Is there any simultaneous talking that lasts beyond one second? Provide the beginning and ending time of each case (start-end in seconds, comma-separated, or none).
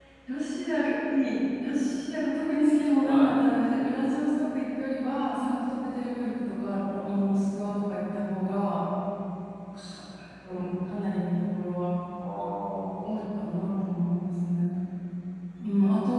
none